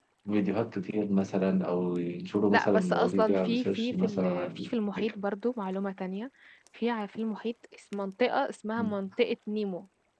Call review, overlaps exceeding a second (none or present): present